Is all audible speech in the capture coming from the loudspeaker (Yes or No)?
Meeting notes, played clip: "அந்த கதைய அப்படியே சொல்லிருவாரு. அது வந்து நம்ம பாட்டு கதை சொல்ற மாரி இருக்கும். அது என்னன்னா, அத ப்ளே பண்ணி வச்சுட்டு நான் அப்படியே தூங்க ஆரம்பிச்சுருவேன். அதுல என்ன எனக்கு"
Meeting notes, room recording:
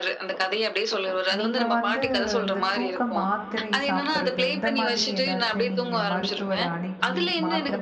No